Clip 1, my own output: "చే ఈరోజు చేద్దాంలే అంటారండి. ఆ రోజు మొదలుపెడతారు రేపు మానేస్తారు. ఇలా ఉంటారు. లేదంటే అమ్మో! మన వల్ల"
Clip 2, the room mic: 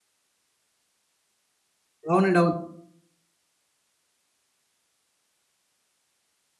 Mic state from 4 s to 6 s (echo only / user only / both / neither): neither